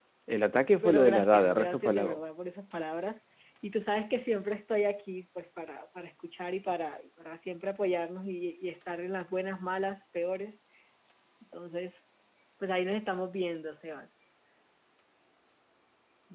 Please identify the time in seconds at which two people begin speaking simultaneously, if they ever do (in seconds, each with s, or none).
0.8 s